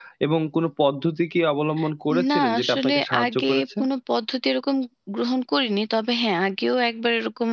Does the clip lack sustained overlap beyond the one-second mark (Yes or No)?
No